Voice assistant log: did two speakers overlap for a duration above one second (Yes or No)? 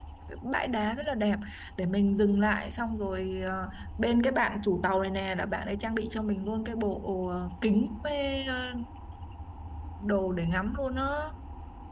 No